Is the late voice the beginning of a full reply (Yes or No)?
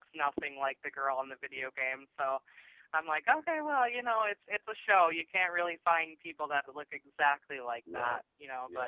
Yes